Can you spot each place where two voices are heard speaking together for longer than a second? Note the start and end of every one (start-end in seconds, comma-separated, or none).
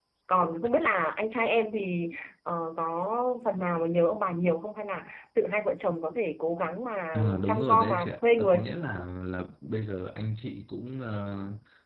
7.1-8.6